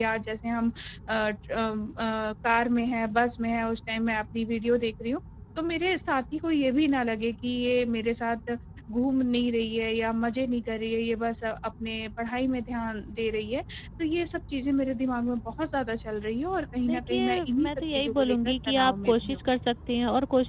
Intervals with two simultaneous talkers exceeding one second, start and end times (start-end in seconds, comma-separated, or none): 16.8-19.4